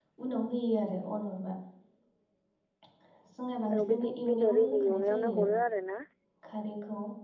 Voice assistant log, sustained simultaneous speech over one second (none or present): present